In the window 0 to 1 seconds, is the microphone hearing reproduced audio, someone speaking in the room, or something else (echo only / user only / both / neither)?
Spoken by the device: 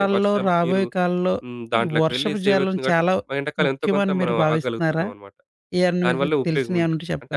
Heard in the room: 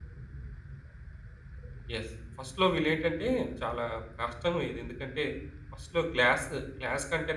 neither